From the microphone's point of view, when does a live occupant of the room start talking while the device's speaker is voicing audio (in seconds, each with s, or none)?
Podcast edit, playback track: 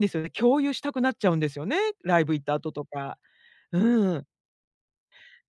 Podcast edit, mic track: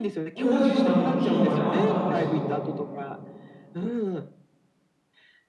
0.3 s